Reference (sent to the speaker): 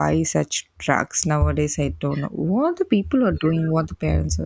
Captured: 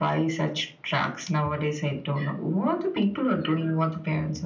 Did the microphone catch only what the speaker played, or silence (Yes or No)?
Yes